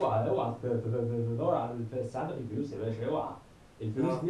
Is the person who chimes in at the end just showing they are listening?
Yes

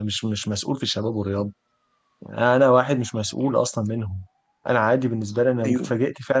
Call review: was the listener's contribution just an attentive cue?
Yes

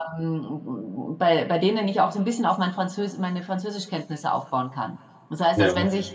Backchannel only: Yes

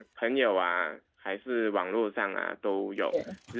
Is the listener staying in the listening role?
Yes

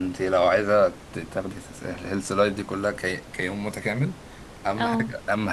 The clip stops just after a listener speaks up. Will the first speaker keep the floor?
Yes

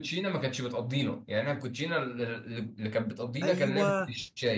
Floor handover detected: Yes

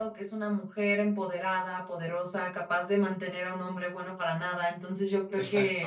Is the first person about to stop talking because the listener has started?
No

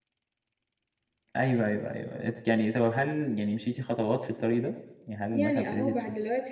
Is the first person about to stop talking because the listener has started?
Yes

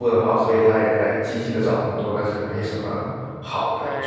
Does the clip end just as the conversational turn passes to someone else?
Yes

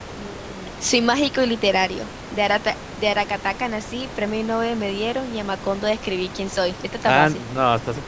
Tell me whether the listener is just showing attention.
No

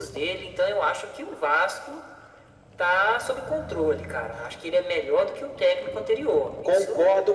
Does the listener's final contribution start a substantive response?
Yes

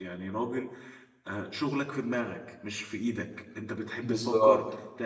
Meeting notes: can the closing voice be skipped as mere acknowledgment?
Yes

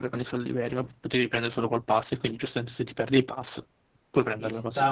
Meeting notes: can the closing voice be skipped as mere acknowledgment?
No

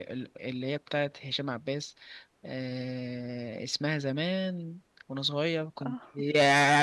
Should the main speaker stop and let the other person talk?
No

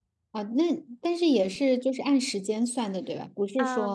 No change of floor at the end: No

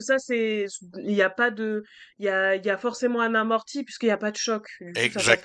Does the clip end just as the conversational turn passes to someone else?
Yes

